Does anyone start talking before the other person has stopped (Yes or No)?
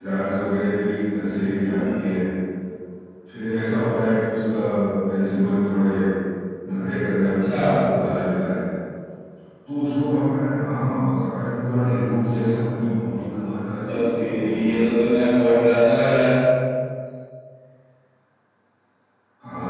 Yes